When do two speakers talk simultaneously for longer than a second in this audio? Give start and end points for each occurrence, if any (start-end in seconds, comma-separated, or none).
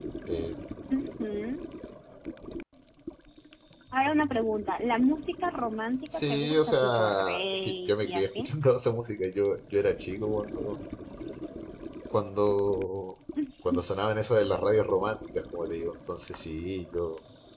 6.1-8.5